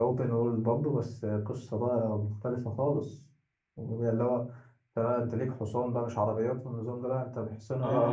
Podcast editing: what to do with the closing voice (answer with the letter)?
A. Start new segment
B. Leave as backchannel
A